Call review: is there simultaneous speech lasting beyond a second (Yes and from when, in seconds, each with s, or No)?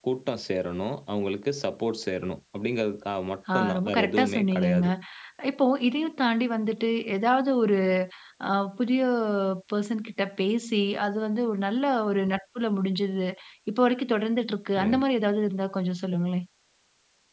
Yes, from 3.5 s